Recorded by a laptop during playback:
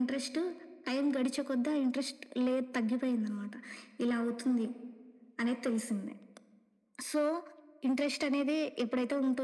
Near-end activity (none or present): none